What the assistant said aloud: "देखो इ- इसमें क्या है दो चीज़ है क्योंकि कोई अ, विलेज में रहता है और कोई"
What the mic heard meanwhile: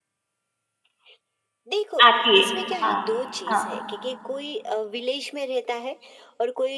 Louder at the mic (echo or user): user